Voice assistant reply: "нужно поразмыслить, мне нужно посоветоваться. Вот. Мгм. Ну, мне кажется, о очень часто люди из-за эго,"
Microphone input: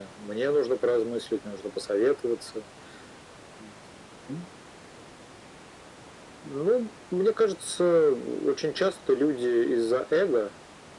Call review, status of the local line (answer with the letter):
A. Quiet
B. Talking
A